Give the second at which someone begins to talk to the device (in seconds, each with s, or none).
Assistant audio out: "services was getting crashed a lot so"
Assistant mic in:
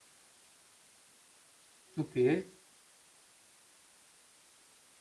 2.0 s